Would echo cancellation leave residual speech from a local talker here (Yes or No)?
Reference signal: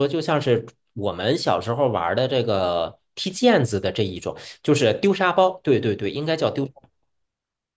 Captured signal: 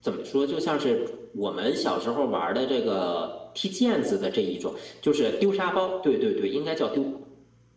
No